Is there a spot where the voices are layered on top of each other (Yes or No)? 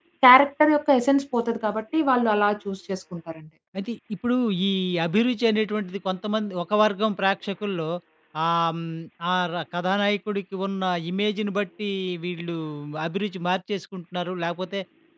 No